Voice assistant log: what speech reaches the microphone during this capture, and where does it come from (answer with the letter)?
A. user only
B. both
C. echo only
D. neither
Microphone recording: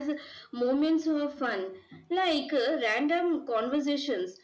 C